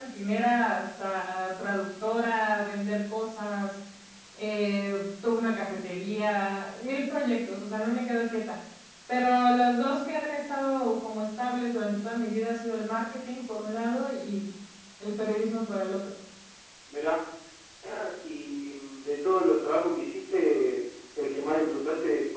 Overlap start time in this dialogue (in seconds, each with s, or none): none